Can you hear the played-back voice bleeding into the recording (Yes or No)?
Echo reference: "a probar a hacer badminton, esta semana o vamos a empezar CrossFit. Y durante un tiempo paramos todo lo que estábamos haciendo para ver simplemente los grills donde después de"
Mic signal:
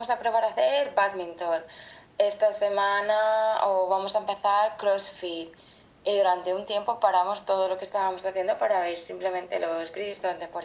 Yes